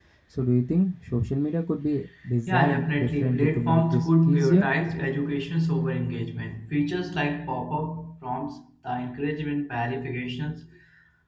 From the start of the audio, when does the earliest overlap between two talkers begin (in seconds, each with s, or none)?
2.5 s